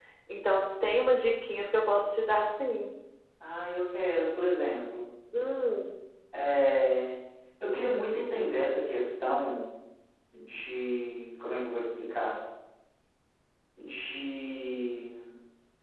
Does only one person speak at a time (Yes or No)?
Yes